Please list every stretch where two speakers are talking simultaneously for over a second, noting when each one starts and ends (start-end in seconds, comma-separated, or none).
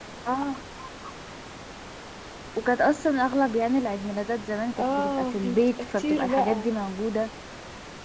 4.8-6.7